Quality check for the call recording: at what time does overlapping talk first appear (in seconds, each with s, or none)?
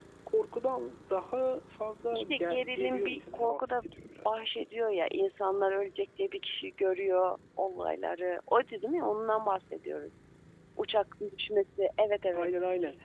2.1 s